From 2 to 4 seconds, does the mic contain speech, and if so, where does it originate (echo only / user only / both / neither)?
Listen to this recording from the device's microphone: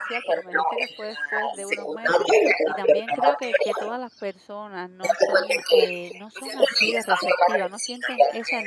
both